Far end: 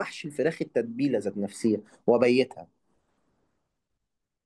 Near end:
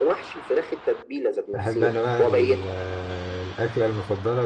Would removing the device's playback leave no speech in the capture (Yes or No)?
No